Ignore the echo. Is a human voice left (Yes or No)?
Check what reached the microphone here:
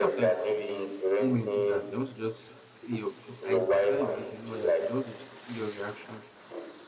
Yes